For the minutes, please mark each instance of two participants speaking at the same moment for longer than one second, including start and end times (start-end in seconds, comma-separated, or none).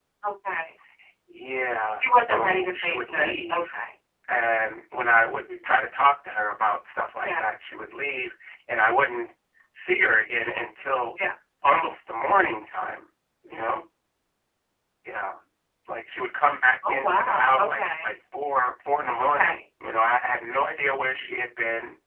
2.0-3.7, 16.9-18.1